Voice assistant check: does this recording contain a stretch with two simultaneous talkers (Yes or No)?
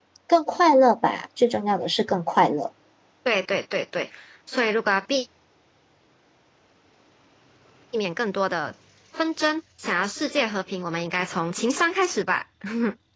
No